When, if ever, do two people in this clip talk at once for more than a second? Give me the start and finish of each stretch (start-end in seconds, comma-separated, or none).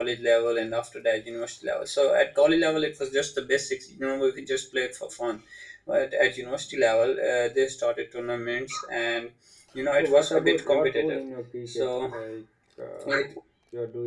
10.0-11.2